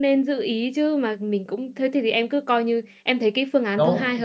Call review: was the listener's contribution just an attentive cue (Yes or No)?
No